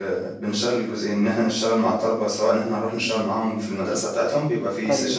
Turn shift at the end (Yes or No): No